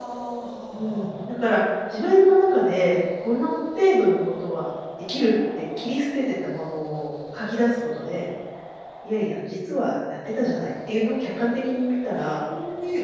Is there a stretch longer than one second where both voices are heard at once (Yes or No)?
No